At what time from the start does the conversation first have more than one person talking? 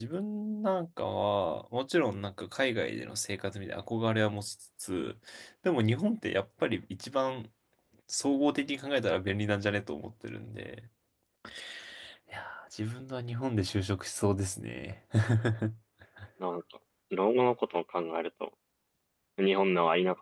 none

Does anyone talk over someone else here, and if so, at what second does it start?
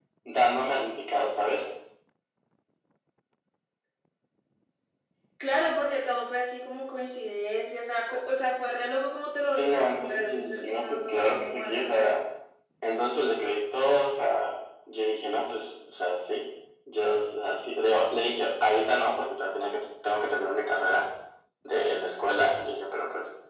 10 s

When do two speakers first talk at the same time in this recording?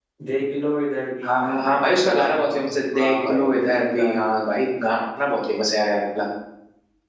1 s

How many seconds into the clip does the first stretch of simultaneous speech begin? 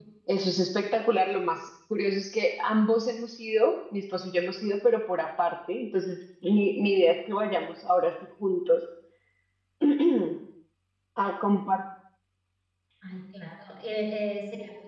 none

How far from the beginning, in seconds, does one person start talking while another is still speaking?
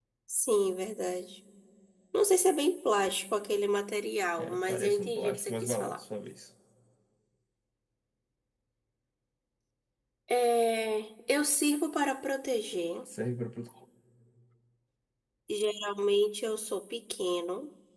4 s

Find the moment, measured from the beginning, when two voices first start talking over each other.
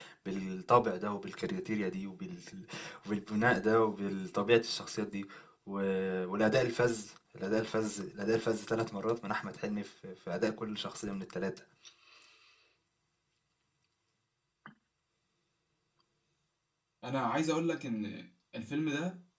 none

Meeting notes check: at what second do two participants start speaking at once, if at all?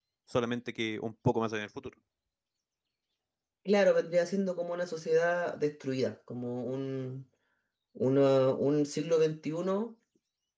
none

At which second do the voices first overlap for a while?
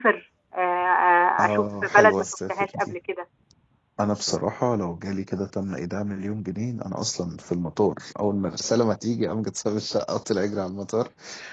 1 s

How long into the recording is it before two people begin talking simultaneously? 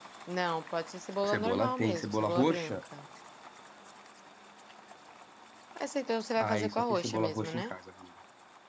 1 s

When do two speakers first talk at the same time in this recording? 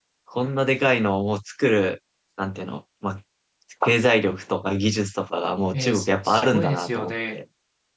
6 s

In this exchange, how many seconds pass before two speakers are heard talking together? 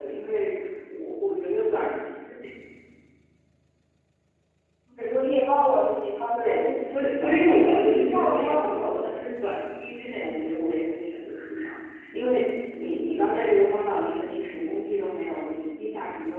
6 s

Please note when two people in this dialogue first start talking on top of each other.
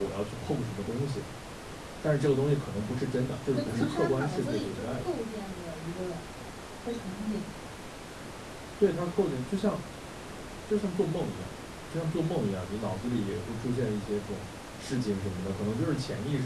4 s

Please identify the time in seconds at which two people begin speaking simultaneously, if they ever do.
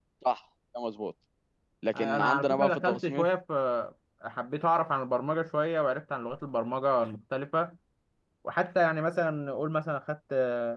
2 s

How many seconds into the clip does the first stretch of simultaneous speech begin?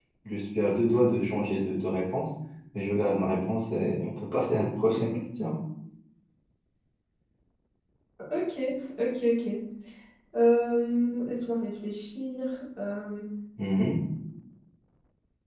none

